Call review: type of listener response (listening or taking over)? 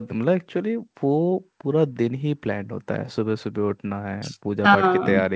listening